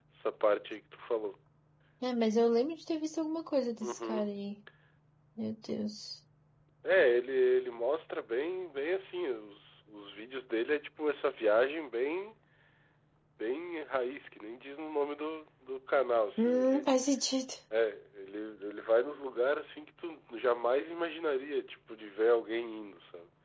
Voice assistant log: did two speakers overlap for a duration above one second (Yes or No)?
No